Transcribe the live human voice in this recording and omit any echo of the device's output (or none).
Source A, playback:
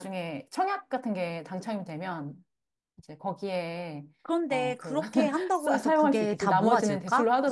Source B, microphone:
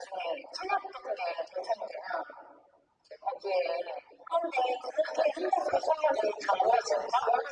none